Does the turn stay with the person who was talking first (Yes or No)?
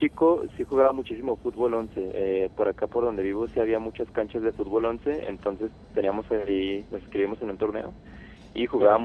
Yes